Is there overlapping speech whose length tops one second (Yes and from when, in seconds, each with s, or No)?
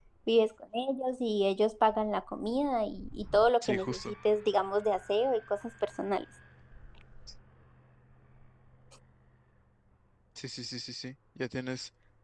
No